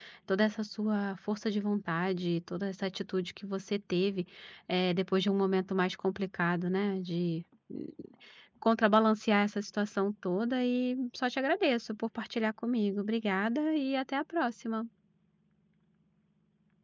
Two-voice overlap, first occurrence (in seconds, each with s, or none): none